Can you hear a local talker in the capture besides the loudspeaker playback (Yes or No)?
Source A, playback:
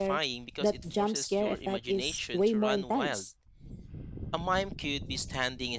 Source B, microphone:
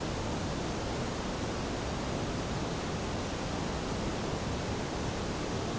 No